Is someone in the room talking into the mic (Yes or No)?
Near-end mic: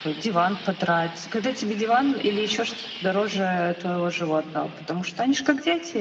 No